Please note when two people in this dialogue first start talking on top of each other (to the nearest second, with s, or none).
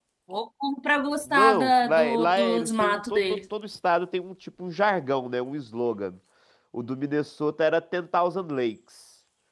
1 s